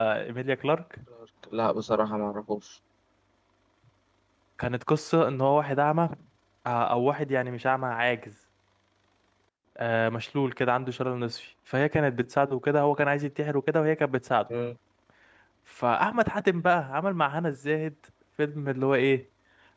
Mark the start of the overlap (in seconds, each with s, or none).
none